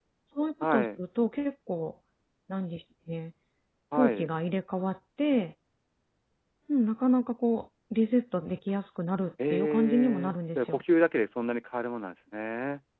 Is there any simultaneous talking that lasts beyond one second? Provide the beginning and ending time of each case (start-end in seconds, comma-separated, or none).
9.5-10.8